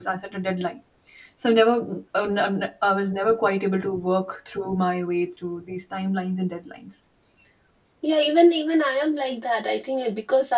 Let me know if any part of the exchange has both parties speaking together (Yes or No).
No